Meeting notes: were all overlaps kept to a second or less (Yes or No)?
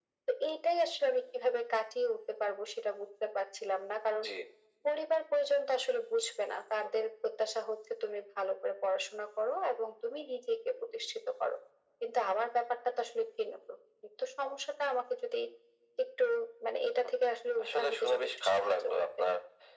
No